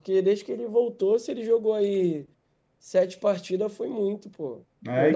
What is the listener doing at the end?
taking over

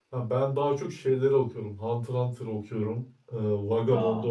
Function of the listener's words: listening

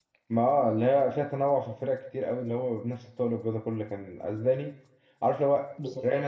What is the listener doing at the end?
listening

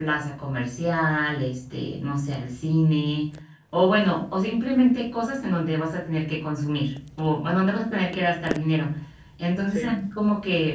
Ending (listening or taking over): listening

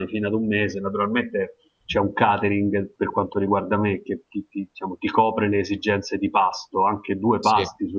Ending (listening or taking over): listening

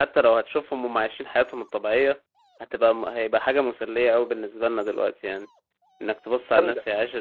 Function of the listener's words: listening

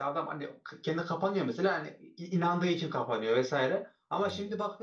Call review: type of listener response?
listening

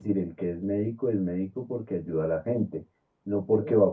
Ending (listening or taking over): listening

